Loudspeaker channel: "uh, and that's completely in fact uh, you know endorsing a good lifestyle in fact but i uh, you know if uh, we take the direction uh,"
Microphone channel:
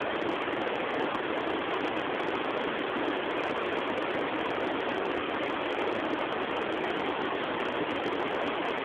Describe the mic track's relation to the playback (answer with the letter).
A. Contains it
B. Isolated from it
B